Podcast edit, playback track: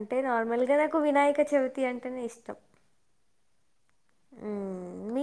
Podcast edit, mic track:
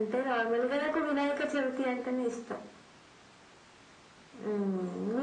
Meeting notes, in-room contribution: none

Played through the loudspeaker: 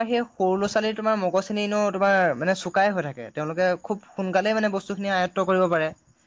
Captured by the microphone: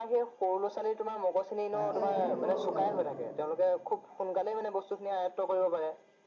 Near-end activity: present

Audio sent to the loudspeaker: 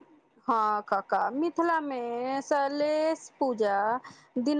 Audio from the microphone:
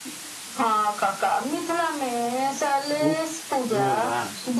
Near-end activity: present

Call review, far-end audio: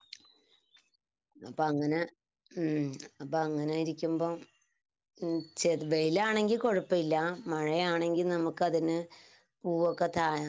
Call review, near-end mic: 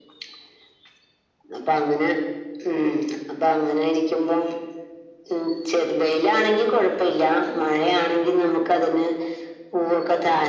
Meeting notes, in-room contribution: none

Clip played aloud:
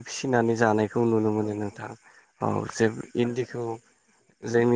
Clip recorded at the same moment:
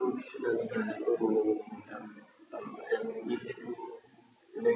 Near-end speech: none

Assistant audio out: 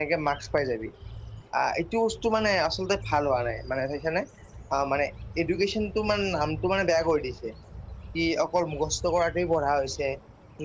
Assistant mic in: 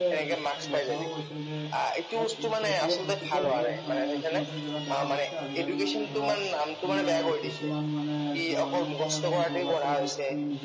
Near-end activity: present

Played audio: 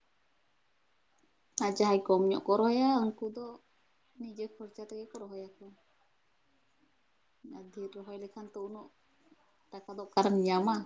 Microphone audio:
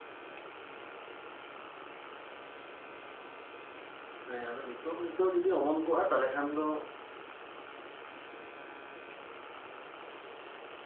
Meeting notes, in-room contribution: present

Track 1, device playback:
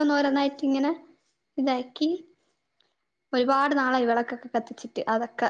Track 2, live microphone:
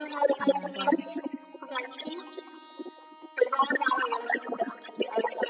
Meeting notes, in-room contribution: present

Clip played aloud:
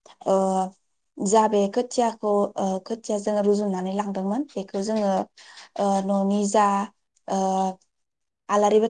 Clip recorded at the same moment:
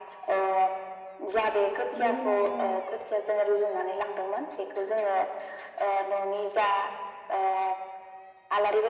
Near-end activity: present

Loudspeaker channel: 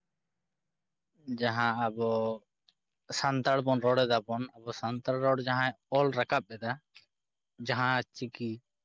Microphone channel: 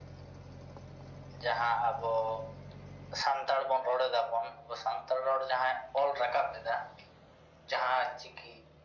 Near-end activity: none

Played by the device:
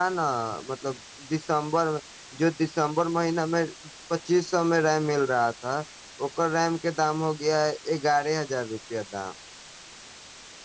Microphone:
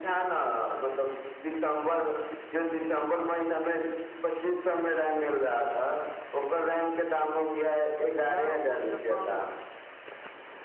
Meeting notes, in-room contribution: present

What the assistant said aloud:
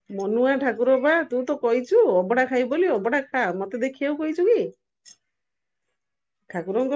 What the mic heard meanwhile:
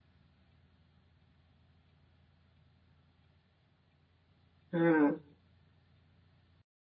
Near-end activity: present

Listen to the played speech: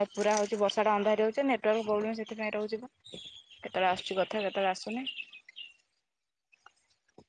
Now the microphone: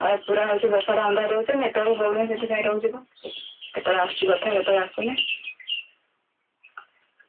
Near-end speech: present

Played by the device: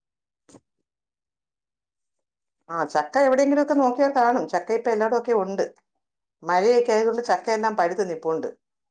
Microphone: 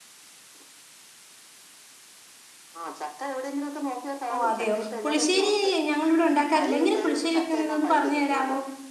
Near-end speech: present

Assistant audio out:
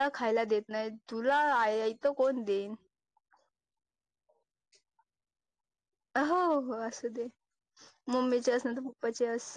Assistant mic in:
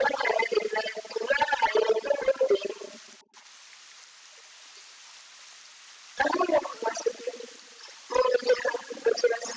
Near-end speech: none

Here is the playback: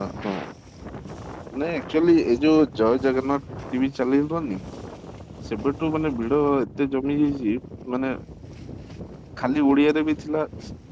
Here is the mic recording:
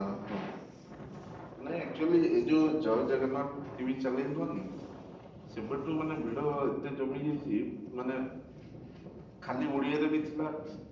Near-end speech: none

